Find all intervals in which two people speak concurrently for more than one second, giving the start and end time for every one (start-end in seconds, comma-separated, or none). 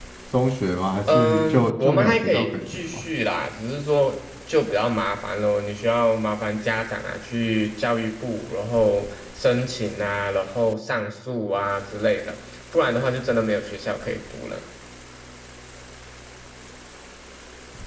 1.1-3.0